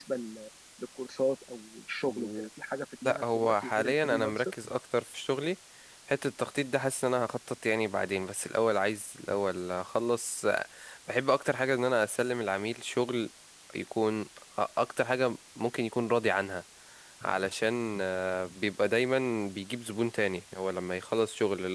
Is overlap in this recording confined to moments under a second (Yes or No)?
No